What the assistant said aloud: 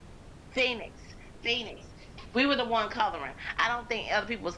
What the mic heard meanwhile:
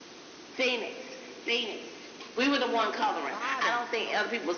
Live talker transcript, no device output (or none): bottom, okay?